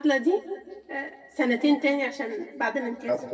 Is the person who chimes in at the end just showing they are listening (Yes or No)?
No